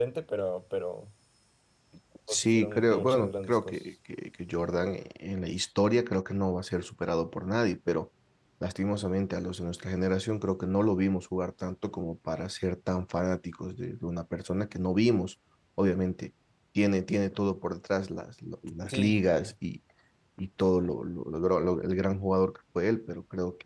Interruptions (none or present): present